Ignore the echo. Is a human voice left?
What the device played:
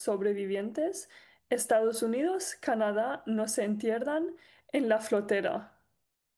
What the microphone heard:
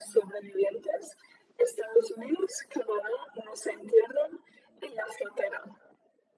No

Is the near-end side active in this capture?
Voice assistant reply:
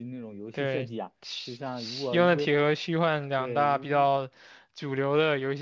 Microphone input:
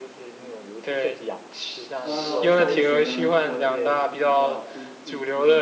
Yes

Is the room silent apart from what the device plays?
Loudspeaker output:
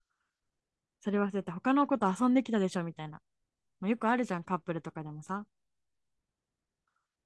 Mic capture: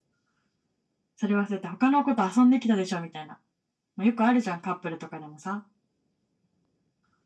Yes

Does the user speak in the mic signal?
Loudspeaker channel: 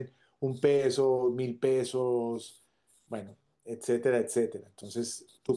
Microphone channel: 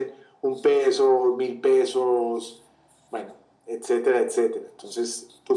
No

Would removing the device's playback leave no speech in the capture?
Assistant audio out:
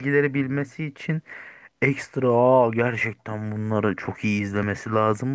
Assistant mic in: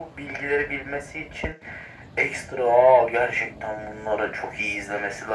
Yes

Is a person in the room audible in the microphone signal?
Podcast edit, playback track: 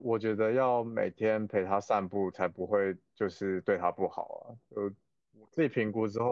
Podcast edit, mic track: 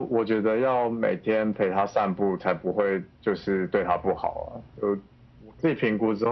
No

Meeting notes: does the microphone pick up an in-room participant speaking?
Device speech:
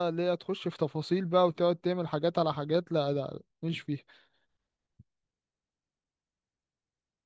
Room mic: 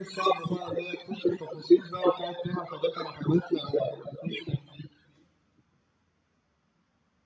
No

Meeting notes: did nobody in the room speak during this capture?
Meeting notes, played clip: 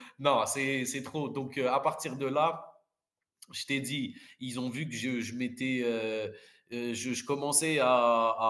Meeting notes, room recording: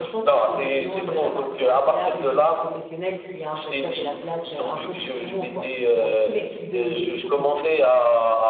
No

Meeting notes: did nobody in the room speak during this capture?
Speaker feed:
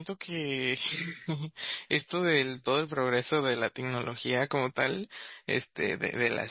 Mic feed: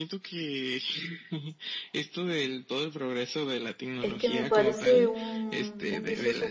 No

